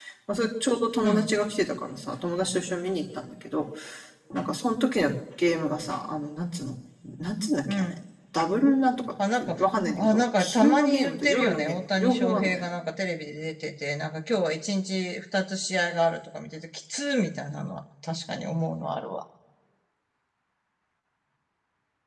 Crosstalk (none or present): present